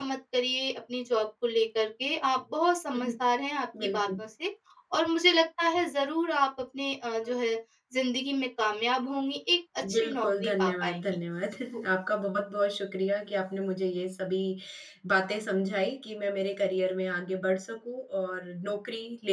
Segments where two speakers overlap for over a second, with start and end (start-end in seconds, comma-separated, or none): 9.9-11.2